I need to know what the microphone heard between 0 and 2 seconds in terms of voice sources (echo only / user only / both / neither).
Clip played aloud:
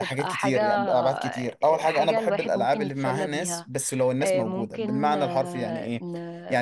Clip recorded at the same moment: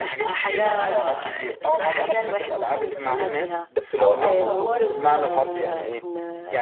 both